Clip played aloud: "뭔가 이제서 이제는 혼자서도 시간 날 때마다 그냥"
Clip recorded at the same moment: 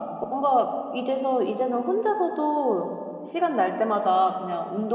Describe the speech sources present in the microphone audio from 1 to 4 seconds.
echo only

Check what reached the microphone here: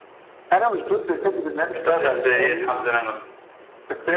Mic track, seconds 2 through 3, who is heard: both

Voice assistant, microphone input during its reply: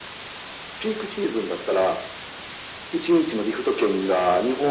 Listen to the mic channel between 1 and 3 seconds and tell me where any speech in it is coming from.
echo only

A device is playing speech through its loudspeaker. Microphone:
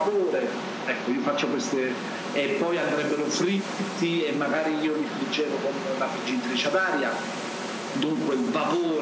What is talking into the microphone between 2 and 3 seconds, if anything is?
echo only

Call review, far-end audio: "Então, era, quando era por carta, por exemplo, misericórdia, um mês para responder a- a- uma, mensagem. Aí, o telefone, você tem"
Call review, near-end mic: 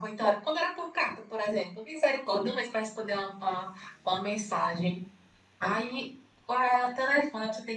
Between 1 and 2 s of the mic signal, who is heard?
echo only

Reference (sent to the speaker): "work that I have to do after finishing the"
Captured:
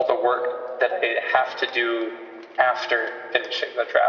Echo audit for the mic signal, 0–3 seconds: echo only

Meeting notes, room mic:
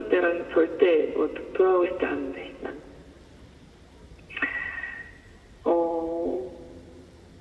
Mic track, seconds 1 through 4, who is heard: echo only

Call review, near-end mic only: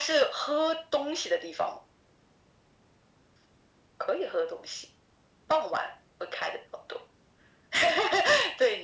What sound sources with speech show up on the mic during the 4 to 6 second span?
echo only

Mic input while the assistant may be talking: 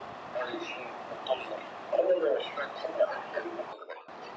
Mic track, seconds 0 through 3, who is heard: echo only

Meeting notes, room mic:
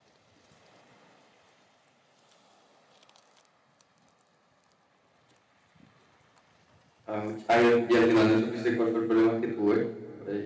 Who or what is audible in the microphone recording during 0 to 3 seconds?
neither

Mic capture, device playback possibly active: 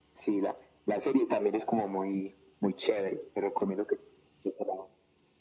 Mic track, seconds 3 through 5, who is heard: echo only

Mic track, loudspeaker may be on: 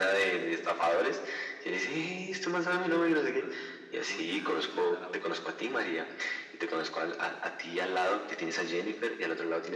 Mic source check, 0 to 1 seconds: echo only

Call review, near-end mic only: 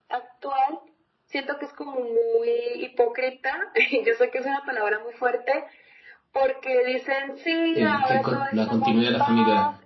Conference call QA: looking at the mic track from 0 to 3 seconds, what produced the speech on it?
echo only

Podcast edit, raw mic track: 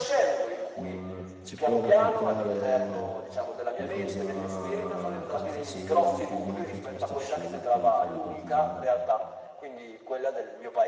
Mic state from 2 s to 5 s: both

